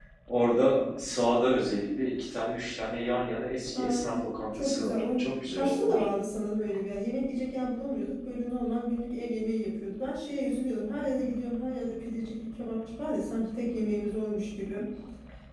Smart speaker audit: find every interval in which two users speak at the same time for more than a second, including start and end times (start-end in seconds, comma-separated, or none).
4.6-6.0